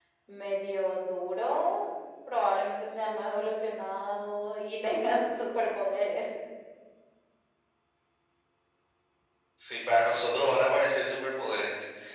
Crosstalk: none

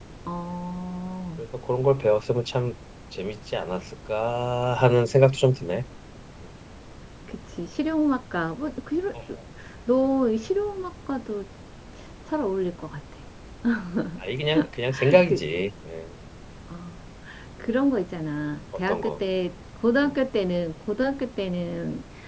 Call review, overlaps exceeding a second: none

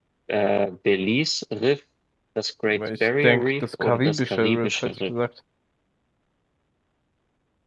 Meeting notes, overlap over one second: present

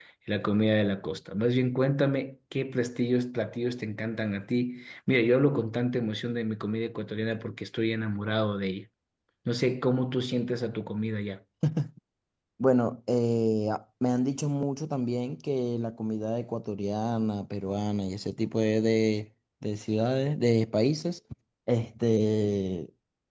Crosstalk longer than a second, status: none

